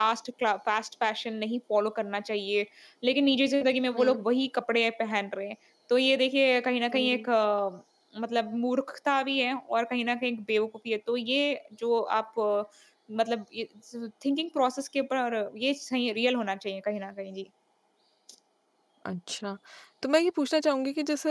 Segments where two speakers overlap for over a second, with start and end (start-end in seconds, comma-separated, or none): none